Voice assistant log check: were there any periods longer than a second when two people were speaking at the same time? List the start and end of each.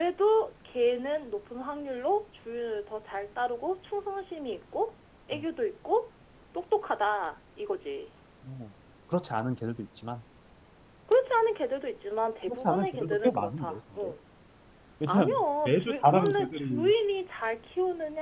12.5-14.1, 15.1-16.9

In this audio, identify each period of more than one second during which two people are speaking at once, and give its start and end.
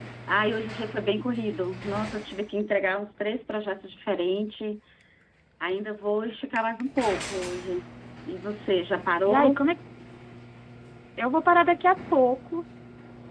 none

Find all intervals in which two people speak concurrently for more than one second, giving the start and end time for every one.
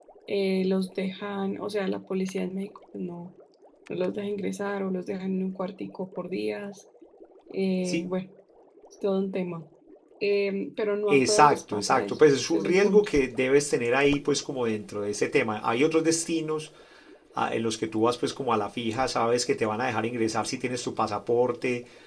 11.1-13.1

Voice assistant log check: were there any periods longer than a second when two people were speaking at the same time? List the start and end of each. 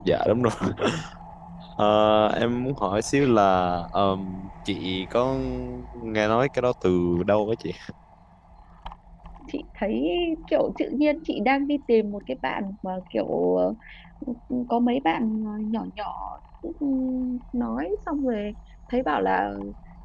none

